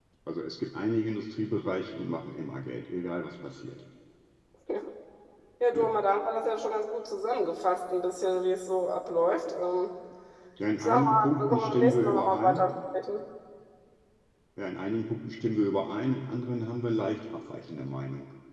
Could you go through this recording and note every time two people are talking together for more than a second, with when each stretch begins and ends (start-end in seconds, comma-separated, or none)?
10.8-12.6